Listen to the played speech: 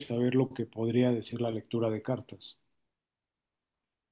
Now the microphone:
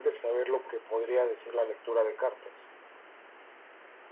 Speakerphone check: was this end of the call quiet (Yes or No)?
Yes